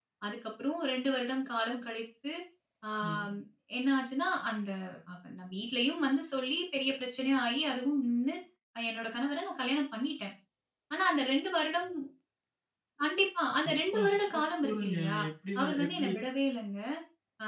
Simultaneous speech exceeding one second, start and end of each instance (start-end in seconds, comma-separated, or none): 13.7-15.2